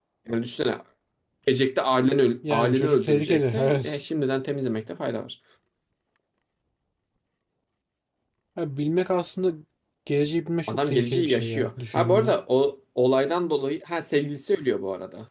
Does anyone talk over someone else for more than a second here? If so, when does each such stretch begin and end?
2.5-4.0, 10.7-12.4

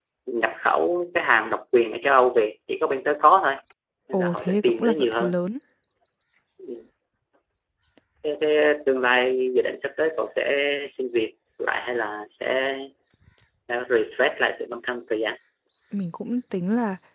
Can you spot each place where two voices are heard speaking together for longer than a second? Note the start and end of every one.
4.1-5.4

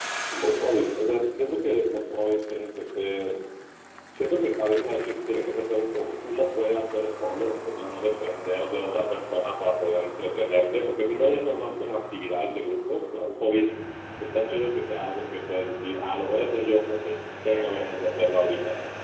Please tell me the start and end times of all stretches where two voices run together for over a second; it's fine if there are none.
none

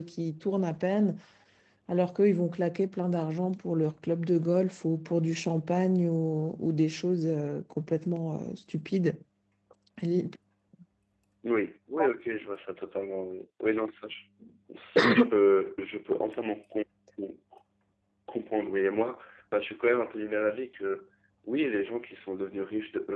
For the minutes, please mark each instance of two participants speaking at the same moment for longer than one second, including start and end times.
none

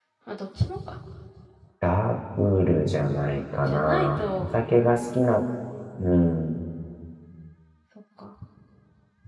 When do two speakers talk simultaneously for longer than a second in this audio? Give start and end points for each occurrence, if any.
3.0-4.5

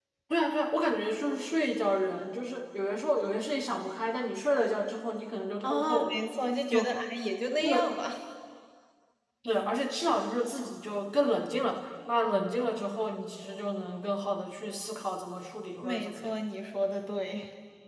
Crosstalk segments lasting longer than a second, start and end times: none

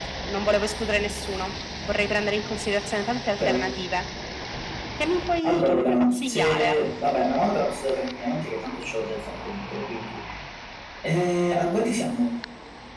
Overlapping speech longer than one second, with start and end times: 5.4-6.8

